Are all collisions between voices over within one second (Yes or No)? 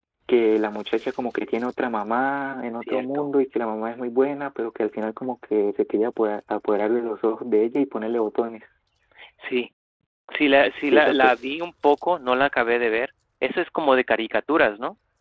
Yes